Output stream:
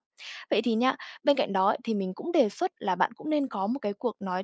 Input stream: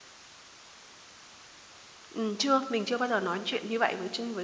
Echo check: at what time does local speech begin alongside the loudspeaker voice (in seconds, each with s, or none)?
2.1 s